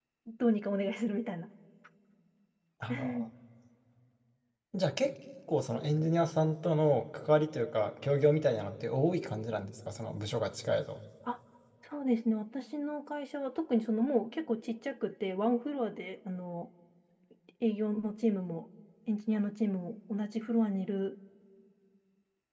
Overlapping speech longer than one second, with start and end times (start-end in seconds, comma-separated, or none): none